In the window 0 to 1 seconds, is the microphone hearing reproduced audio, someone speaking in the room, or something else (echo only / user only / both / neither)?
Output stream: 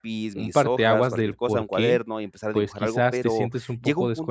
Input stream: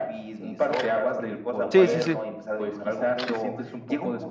echo only